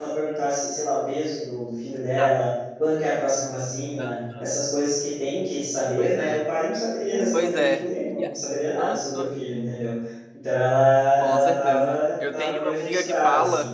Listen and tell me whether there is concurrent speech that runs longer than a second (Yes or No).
Yes